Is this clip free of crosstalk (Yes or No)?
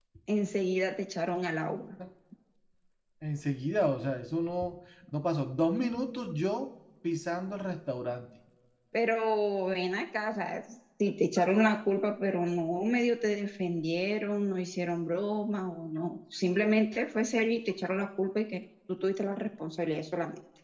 Yes